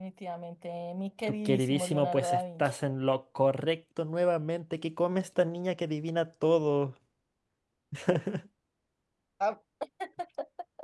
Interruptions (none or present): present